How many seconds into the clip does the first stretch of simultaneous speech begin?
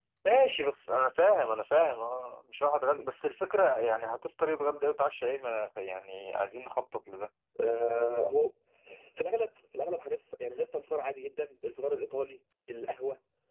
none

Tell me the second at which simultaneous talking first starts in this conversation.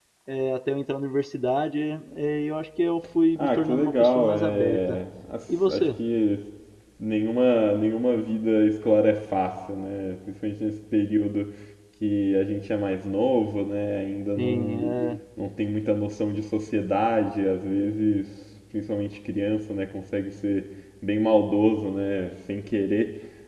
3.4 s

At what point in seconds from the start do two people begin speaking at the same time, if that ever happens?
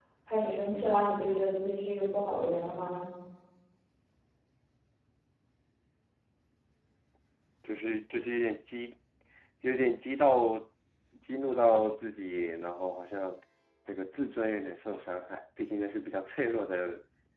none

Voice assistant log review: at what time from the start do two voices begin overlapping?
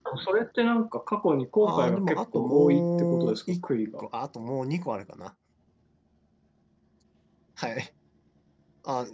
1.6 s

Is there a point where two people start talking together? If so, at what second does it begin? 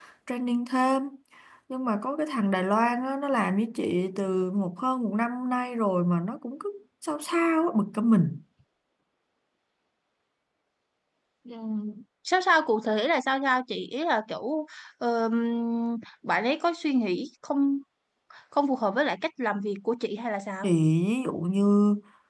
none

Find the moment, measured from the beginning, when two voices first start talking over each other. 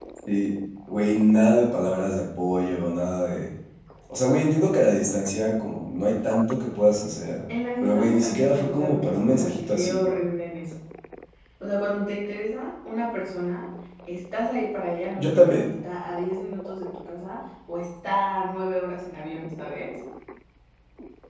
7.8 s

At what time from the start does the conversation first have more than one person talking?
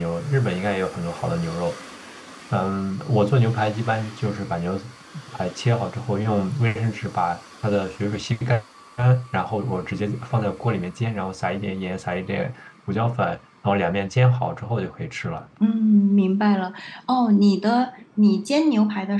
none

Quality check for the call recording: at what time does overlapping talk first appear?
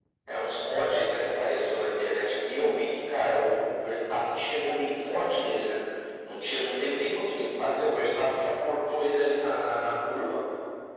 none

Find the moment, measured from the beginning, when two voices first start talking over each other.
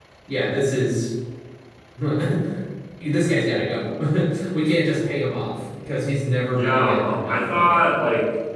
6.5 s

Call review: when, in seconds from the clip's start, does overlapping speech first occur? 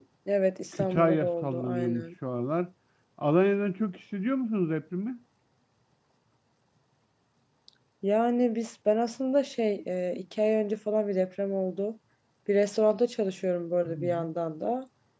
0.7 s

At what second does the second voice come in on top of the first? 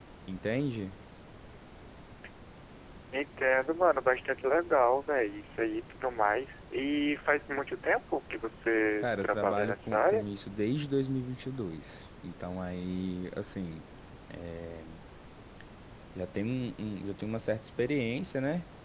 9.0 s

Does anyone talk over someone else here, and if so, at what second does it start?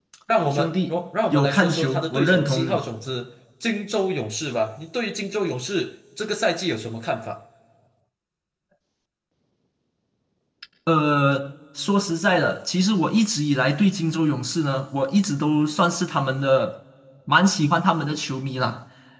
0.5 s

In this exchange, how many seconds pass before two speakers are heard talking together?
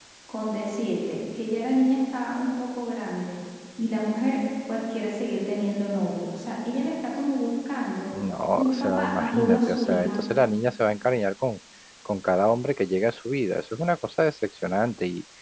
8.6 s

